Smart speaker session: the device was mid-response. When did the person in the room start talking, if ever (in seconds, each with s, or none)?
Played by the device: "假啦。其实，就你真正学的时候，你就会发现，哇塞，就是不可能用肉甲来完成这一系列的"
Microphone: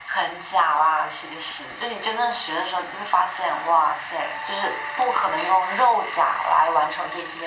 none